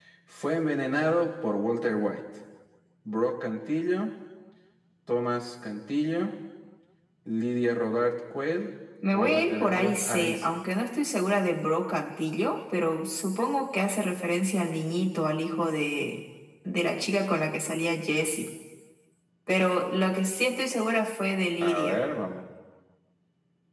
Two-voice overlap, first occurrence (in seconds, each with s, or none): 9.1 s